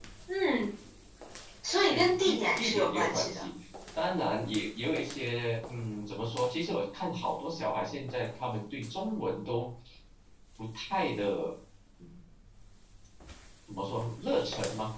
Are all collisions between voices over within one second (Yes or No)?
No